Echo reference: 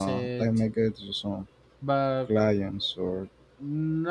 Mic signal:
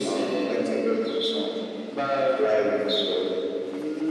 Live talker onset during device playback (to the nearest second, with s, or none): none